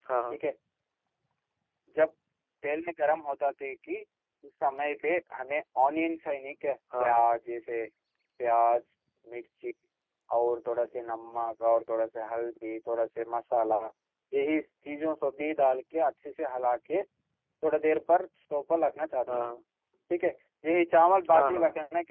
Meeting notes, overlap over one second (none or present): none